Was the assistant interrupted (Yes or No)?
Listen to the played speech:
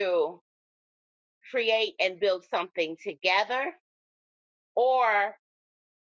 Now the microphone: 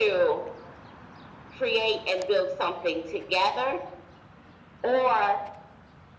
No